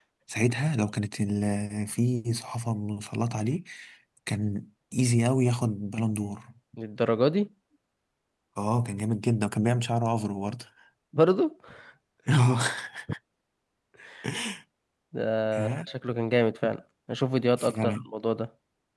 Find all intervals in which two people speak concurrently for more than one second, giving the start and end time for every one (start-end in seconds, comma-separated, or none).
none